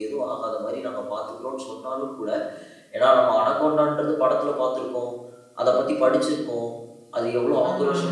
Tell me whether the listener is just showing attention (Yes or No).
Yes